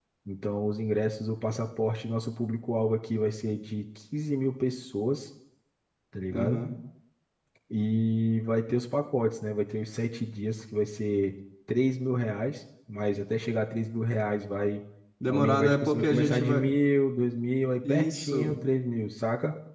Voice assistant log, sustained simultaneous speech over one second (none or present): present